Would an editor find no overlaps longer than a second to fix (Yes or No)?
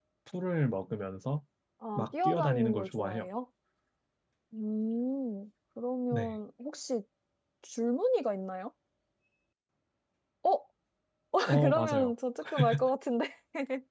No